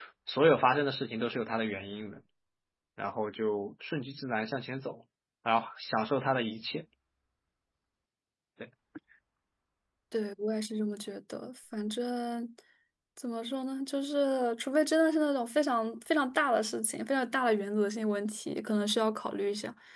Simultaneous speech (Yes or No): No